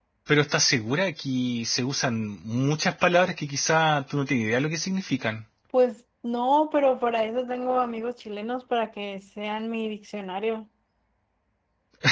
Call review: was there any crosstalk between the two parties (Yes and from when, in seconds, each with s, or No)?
No